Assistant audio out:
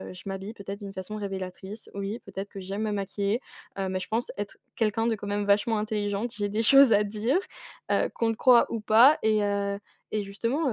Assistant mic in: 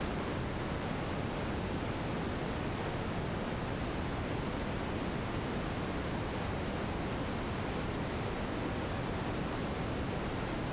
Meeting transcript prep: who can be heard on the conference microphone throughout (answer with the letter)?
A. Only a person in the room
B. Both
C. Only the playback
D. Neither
D